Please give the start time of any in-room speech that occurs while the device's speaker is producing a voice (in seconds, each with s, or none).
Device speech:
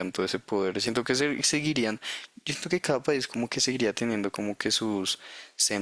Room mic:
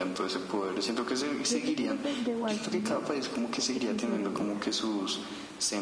1.5 s